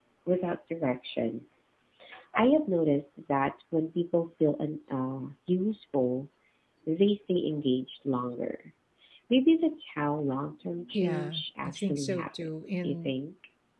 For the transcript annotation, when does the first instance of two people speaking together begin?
10.9 s

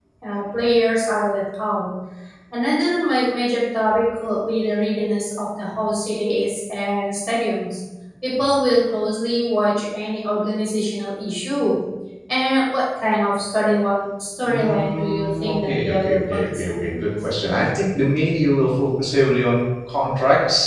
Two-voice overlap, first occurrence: 14.4 s

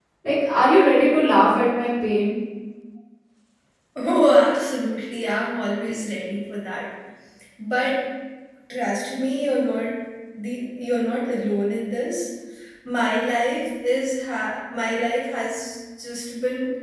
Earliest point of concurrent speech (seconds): none

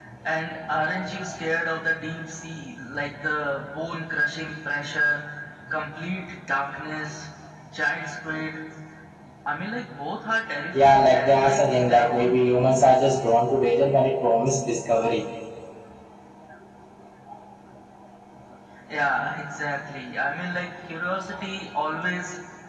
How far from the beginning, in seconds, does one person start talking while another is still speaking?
10.7 s

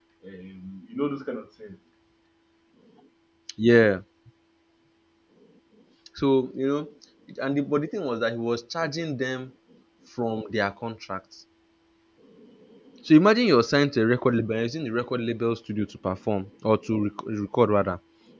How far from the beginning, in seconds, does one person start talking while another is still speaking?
none

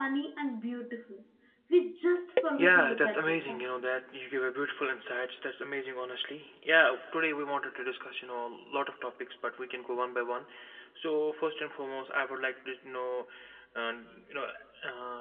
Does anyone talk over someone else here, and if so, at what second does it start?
2.6 s

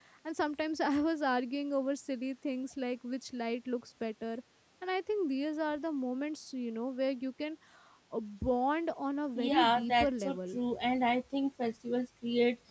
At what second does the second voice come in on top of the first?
9.4 s

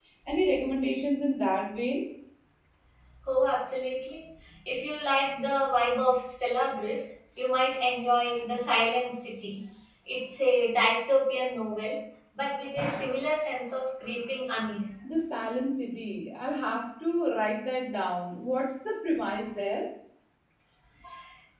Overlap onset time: none

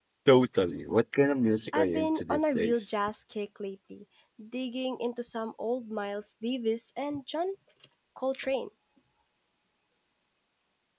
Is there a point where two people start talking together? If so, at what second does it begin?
1.7 s

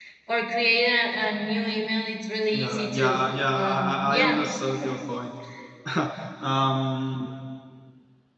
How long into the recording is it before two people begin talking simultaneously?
2.5 s

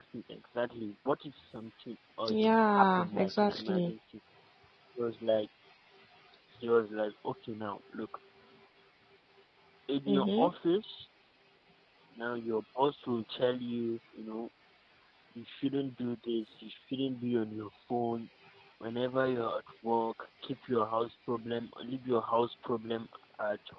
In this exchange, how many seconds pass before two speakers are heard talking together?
2.4 s

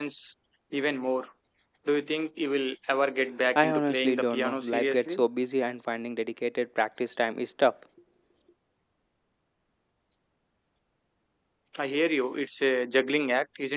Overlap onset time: 3.5 s

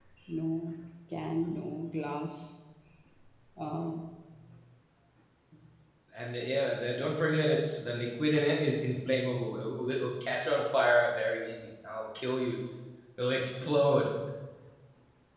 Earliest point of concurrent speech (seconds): none

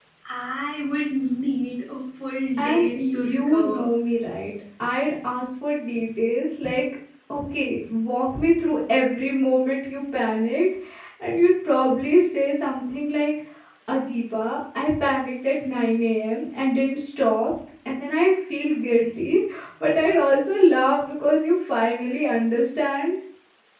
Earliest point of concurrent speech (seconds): 2.6 s

